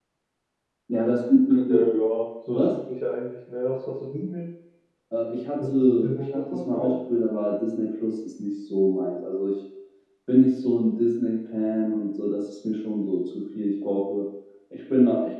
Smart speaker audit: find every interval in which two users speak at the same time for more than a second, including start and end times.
5.6-6.9

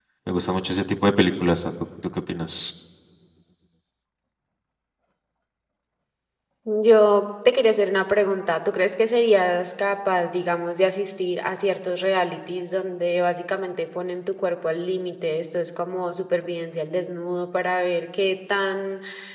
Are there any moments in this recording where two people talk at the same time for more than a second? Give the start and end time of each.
none

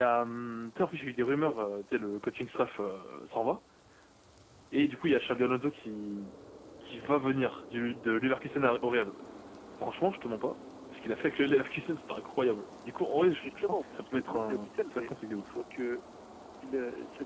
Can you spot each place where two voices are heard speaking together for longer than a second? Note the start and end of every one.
13.1-15.4

